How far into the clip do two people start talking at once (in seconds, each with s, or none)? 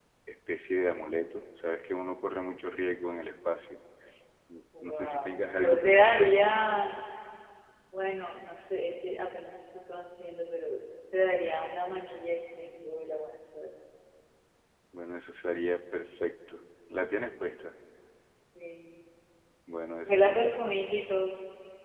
4.8 s